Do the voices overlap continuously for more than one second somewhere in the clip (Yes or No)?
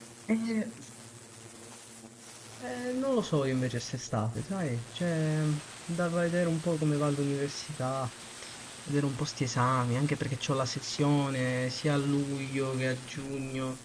No